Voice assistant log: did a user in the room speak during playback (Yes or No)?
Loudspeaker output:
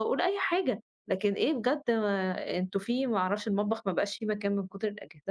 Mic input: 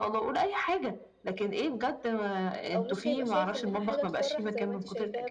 Yes